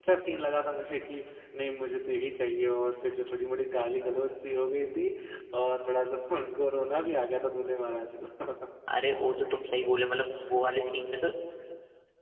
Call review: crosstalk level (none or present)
none